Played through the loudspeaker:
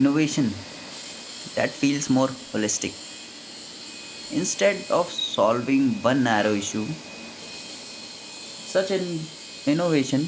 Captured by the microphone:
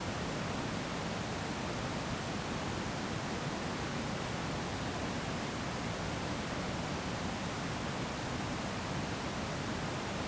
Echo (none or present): none